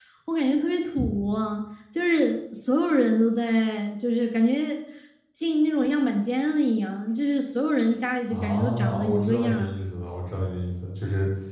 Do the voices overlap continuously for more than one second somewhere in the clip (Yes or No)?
Yes